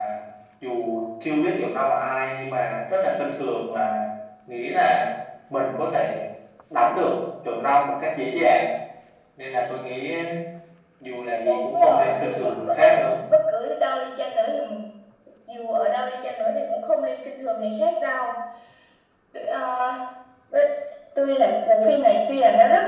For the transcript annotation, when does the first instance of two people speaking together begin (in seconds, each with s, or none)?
11.4 s